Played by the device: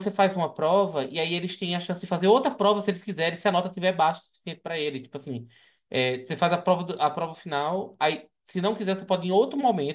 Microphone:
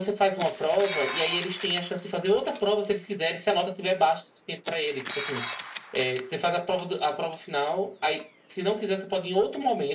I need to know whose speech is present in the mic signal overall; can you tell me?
echo only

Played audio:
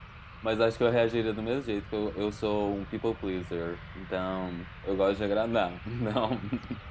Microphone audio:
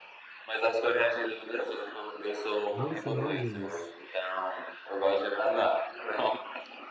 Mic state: both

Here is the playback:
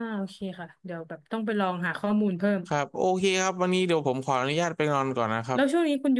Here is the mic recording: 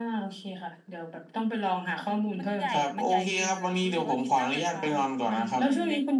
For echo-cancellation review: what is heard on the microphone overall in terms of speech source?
both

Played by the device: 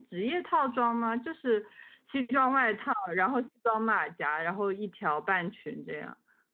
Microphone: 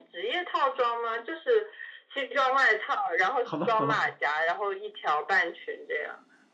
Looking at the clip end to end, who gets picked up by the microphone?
both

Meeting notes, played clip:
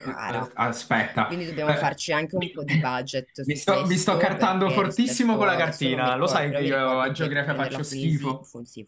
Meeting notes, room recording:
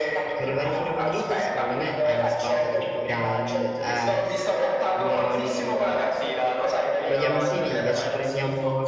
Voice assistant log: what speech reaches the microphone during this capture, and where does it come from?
both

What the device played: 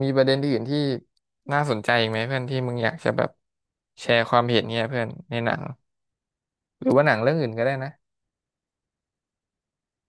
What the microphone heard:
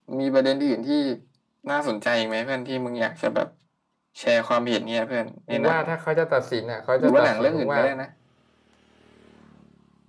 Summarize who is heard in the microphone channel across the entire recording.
both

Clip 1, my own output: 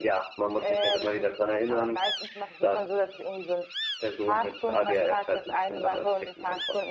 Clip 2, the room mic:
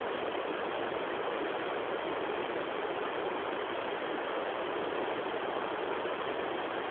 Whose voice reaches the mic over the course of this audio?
neither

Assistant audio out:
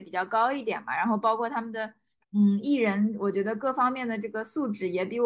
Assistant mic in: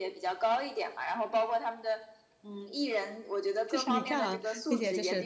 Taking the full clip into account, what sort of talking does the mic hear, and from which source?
both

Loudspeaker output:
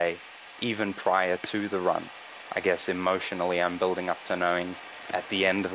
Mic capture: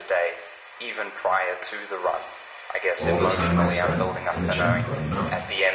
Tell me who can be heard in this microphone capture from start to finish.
both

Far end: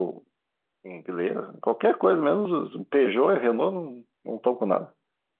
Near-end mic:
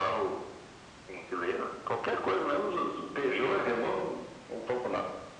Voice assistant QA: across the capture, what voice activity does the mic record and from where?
echo only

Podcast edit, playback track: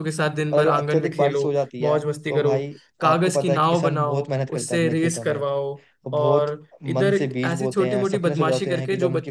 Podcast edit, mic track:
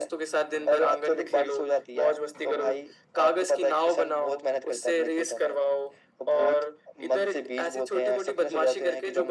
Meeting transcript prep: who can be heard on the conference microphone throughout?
echo only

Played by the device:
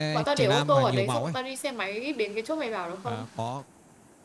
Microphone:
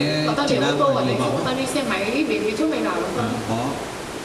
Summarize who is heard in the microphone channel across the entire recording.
echo only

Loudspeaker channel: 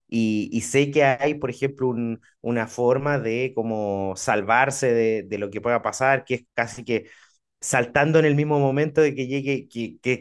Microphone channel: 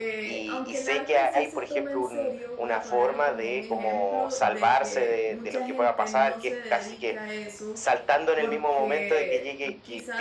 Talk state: both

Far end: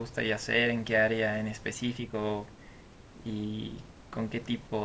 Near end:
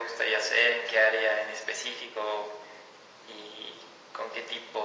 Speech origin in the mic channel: echo only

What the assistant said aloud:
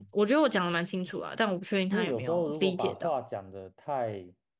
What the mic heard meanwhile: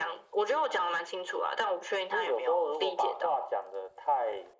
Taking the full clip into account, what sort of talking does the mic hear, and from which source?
echo only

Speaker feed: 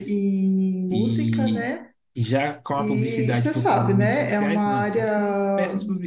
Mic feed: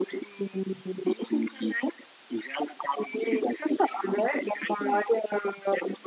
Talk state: echo only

